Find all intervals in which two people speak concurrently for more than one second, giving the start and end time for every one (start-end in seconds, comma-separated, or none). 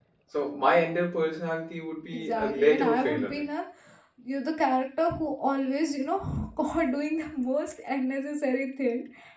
2.1-3.4